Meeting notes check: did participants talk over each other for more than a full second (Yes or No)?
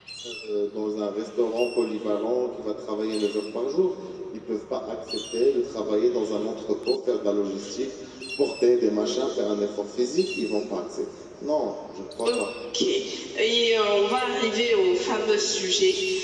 No